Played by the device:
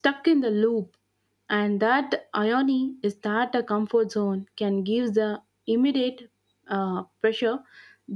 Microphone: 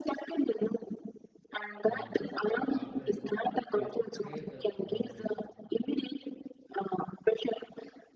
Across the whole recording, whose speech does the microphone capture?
both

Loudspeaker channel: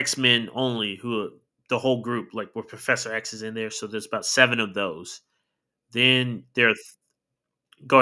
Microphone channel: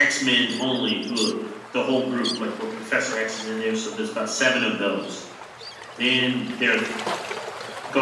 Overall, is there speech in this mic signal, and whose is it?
echo only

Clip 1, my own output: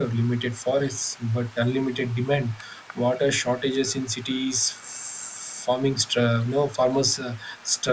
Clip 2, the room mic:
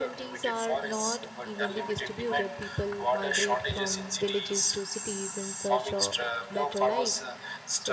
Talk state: both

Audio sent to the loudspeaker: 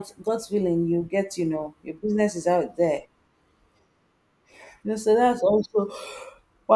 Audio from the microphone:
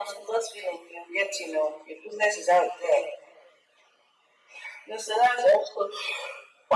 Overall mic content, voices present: echo only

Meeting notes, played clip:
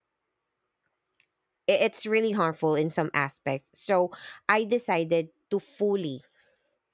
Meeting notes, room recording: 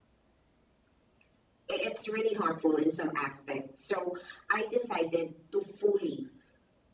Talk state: echo only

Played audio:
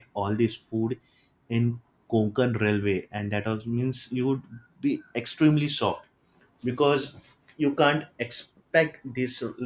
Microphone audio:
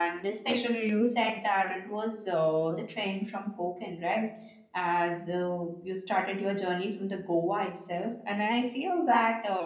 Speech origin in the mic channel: user only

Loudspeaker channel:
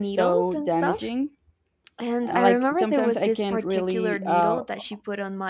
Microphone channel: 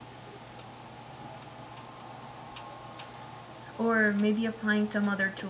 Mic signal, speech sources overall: user only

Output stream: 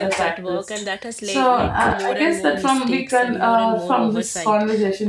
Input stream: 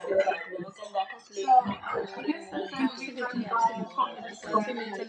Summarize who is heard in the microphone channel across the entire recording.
both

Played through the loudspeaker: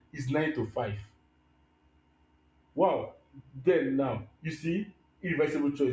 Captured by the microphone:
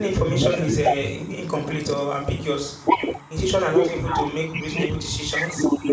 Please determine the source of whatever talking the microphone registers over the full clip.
both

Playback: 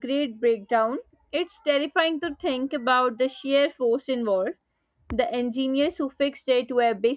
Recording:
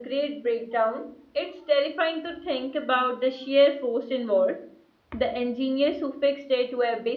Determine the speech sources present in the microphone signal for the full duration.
echo only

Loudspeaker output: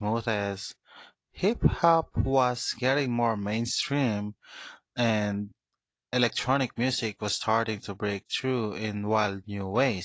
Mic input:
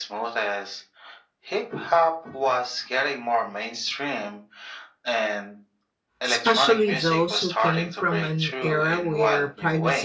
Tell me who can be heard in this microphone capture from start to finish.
both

